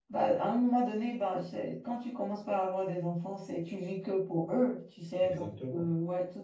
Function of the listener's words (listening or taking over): listening